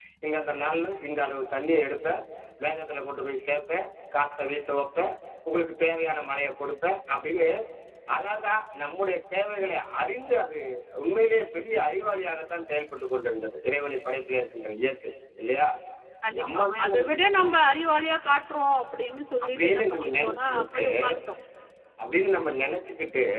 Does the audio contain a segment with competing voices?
Yes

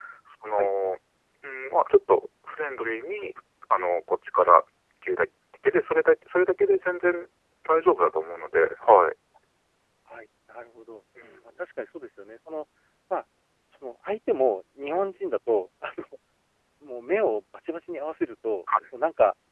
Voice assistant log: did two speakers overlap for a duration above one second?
No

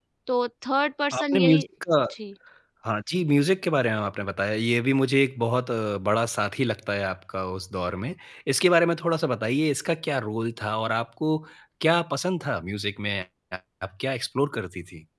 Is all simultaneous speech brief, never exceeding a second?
Yes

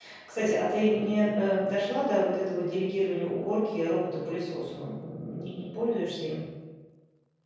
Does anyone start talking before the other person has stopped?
No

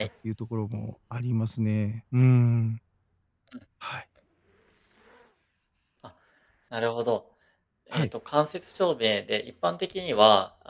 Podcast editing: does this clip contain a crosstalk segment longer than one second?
No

